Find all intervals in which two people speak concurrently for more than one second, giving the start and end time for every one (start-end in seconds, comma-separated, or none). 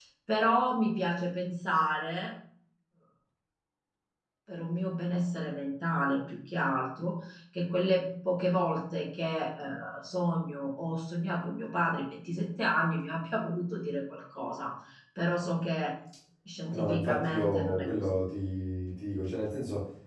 16.7-18.2